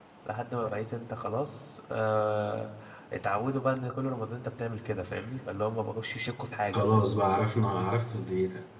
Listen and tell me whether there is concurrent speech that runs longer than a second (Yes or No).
No